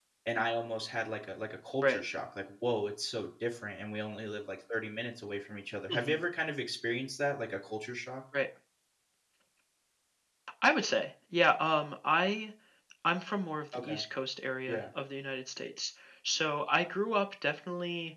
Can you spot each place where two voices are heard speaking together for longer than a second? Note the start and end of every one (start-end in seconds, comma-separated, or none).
none